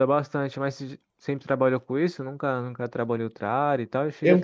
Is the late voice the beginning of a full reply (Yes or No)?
No